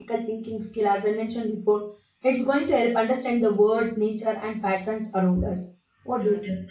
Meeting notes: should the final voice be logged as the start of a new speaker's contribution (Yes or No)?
Yes